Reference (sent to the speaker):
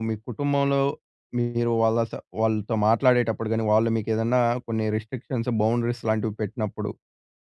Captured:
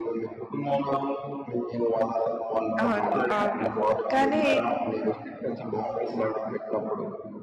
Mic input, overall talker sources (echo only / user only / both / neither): both